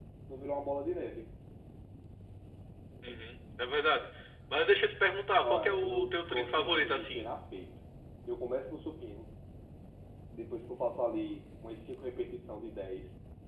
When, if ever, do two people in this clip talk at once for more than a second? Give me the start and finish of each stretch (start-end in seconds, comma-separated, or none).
5.4-7.2